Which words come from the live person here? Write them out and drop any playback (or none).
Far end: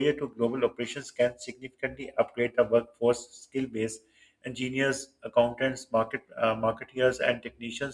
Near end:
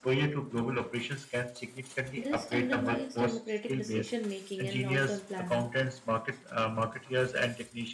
This undermines democratic decision making and long term planning.